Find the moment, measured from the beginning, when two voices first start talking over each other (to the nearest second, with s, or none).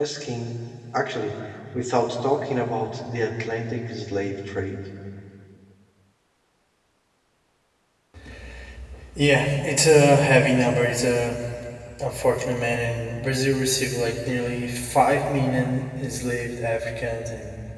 none